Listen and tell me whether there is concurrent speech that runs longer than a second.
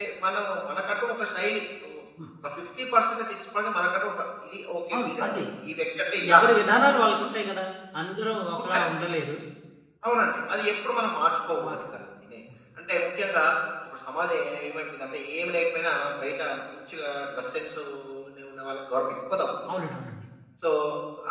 No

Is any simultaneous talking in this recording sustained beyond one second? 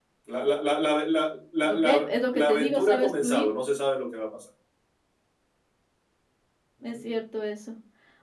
Yes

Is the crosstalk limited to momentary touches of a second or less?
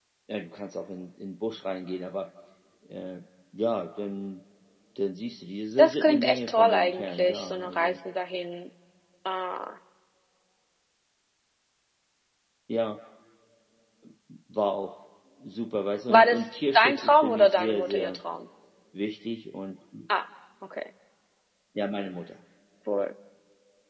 No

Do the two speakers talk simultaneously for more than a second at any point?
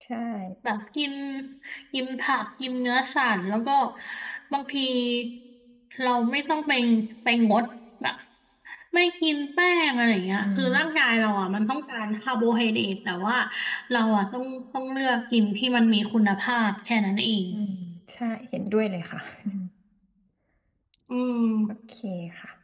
No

